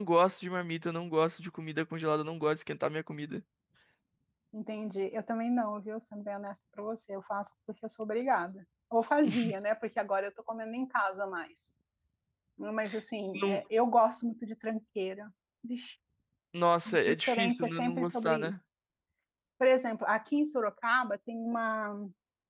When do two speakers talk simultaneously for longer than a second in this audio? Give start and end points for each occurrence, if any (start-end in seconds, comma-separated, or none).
16.9-18.5